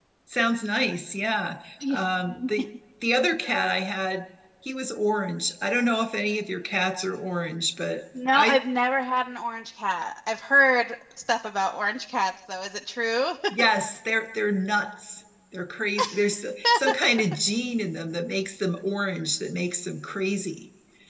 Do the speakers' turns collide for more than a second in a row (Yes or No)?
No